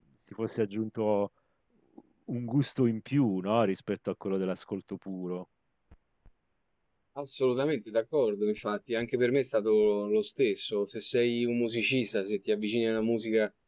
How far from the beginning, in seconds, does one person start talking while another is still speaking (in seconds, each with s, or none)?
none